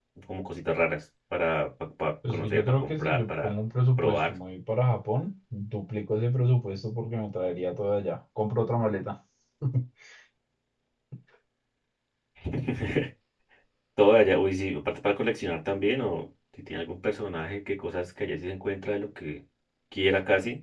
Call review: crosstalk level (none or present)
present